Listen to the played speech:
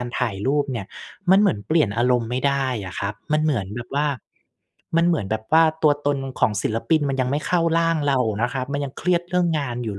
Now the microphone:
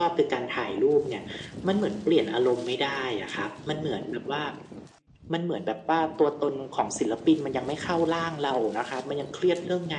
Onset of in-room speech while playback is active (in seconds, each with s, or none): none